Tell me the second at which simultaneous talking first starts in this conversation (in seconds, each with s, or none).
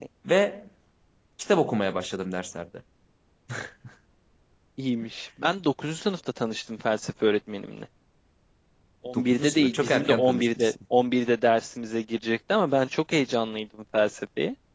9.2 s